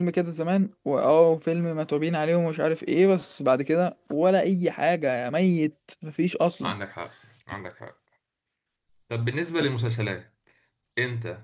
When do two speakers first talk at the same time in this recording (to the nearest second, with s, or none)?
none